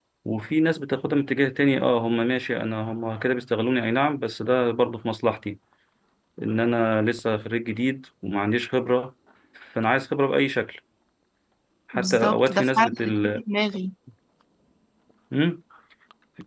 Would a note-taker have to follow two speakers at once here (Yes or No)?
Yes